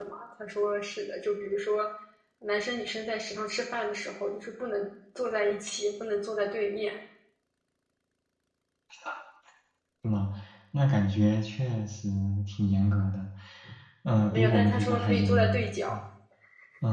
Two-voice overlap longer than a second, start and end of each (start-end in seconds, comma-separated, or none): 14.3-15.9